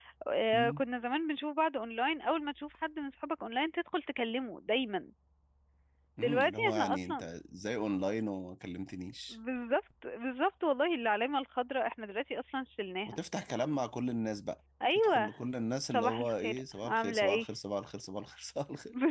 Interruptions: present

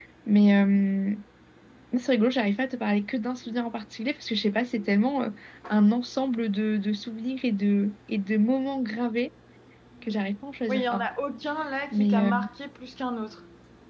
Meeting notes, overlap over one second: none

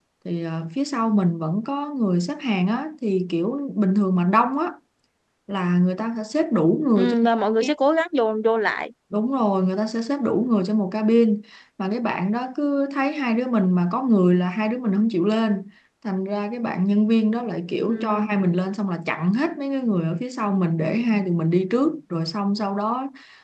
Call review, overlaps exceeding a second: none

